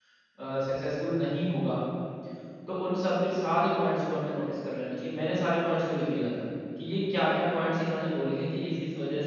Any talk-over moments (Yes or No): No